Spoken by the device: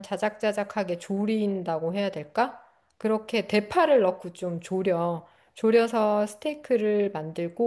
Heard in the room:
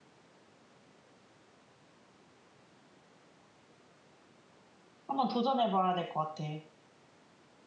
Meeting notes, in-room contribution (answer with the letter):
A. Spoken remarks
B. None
A